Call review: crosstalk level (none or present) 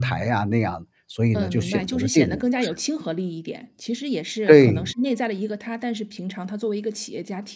present